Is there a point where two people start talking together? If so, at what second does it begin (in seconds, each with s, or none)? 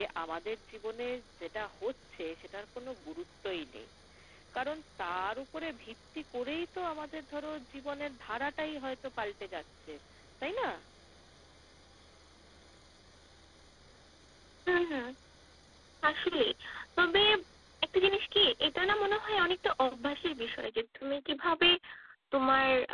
none